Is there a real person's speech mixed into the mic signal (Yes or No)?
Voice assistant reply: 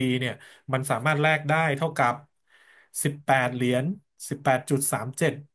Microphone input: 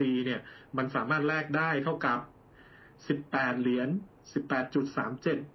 No